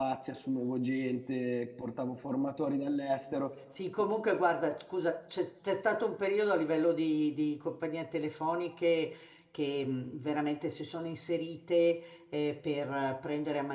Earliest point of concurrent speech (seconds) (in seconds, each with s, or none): none